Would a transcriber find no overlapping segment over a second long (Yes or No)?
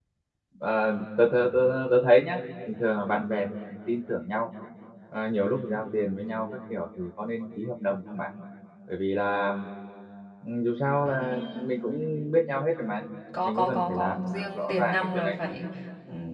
No